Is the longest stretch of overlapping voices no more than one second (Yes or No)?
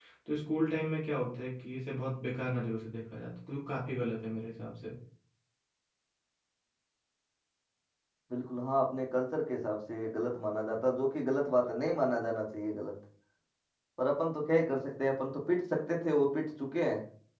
Yes